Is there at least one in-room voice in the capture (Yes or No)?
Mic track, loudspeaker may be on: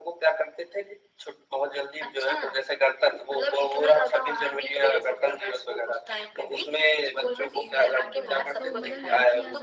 Yes